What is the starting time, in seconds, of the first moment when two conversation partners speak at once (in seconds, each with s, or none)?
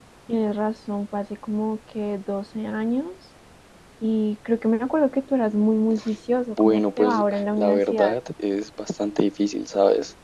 6.6 s